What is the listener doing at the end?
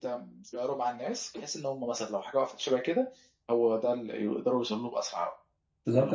taking over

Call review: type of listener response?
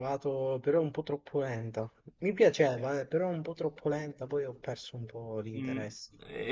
taking over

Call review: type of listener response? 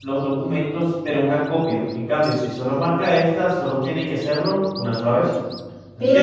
taking over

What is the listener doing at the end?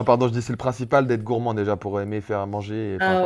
taking over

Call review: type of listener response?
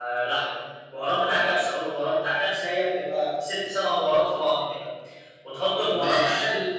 listening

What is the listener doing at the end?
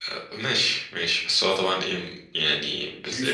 listening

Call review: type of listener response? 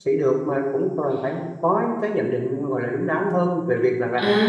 taking over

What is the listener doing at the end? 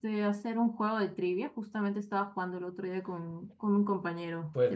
taking over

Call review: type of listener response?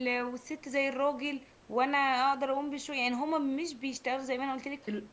listening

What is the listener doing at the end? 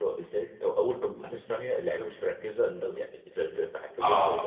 taking over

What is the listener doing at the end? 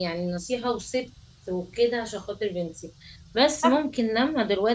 listening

